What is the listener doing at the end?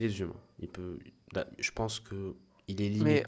taking over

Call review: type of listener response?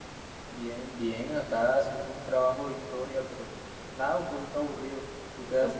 taking over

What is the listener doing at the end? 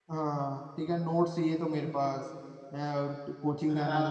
listening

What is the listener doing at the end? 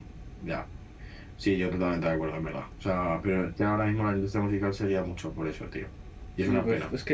taking over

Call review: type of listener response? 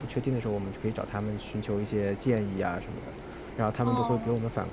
listening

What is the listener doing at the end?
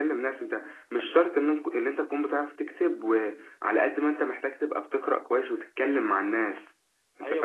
taking over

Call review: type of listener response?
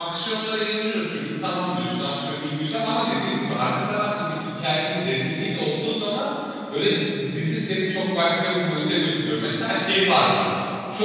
listening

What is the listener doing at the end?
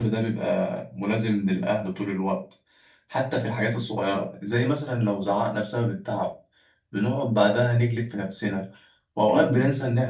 listening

